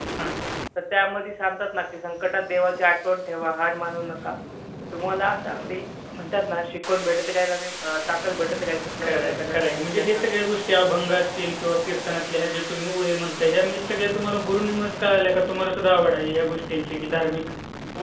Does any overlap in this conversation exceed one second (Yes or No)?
Yes